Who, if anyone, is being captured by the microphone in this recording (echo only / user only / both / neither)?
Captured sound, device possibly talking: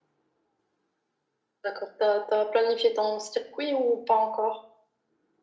echo only